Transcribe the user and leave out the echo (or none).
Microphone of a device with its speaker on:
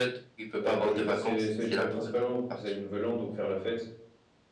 Euh, bah, je vais passer, c'est- j'y vais principalement pour passer le nouvel an, donc faire la fête.